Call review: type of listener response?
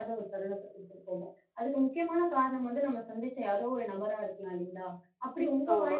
listening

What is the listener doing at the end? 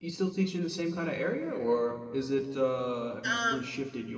listening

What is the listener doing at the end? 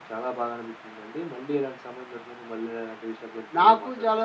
taking over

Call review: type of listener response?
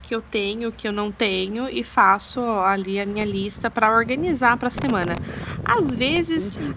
listening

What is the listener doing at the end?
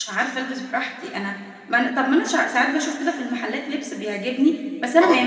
listening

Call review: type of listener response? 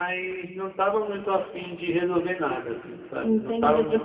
taking over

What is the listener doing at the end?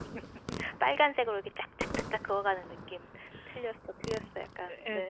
taking over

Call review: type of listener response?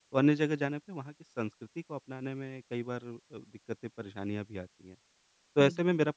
listening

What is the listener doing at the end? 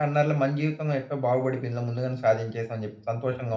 taking over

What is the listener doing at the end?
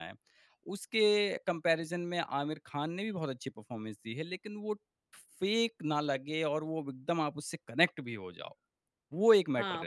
taking over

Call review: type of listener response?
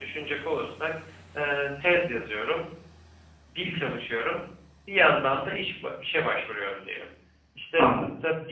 listening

